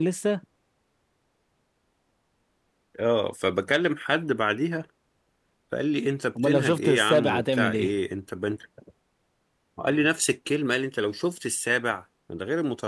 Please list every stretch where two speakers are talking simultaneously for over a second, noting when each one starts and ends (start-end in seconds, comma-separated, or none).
6.4-7.9